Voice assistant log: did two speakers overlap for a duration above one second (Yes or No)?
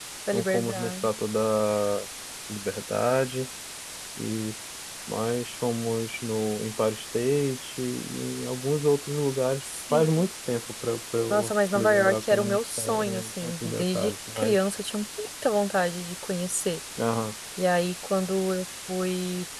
Yes